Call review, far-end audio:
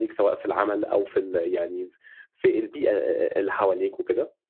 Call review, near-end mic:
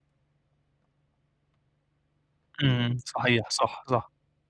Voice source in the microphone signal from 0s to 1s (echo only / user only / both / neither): neither